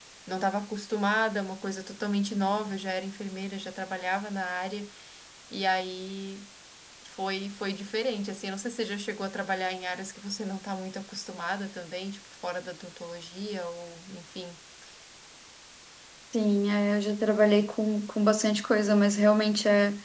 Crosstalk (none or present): none